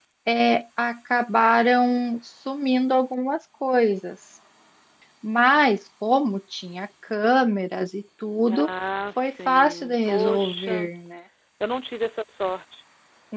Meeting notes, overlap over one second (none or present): present